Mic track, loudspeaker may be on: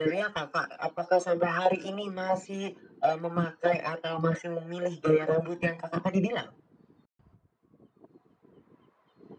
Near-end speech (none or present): none